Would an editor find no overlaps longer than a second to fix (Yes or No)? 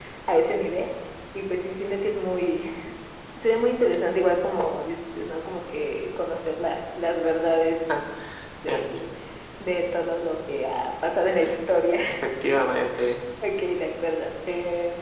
Yes